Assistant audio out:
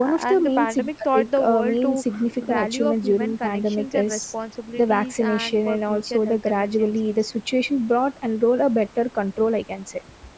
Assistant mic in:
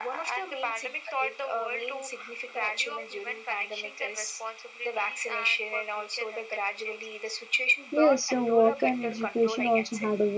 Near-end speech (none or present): present